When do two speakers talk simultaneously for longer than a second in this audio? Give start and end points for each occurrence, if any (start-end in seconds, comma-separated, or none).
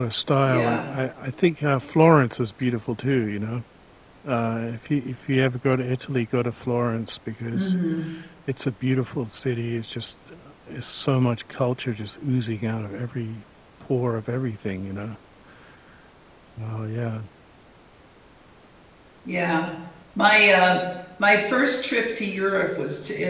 none